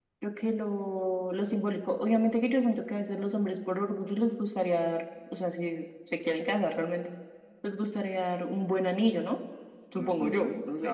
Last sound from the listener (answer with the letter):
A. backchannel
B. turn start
B